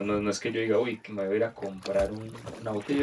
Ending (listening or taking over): taking over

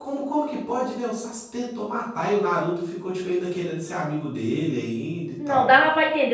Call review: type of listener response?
taking over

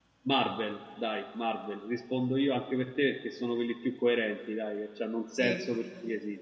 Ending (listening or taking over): listening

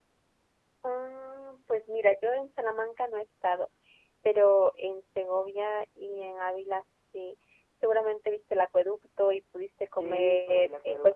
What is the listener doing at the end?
taking over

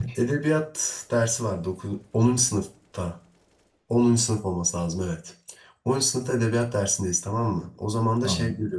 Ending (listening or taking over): listening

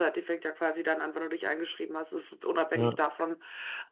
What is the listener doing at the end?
listening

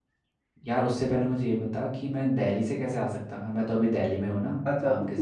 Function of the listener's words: taking over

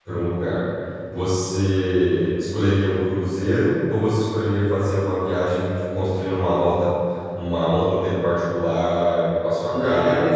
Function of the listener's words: taking over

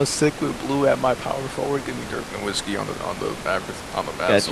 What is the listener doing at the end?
taking over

